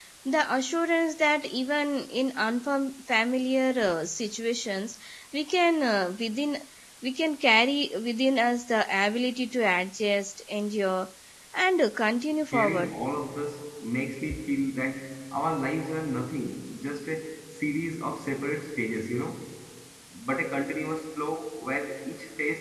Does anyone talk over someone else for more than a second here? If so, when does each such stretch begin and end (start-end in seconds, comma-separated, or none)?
none